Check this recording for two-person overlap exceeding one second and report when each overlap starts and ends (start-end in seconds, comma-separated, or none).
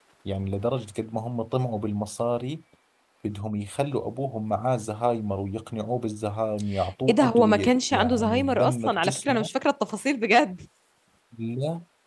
7.1-9.5